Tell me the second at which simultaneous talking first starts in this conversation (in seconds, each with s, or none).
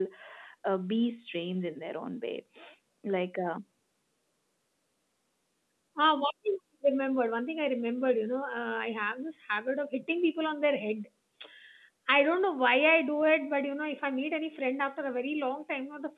none